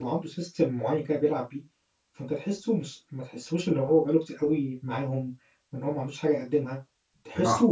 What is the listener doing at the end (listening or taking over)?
listening